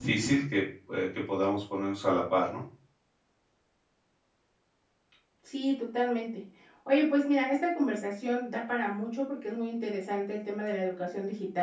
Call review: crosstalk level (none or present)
none